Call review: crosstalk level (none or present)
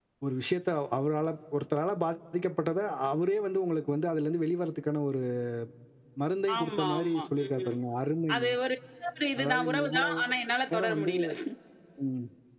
present